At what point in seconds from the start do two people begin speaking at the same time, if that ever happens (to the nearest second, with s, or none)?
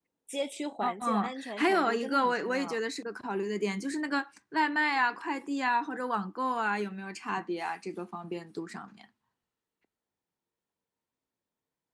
1 s